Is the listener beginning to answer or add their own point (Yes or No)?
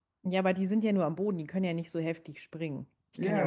Yes